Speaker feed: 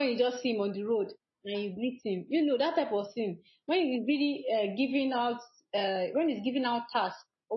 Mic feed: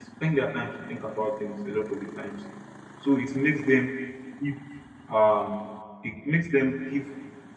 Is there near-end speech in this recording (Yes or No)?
Yes